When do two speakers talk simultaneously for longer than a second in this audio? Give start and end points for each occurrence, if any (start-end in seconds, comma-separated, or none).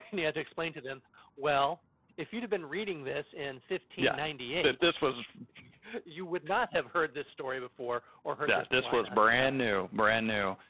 8.5-9.8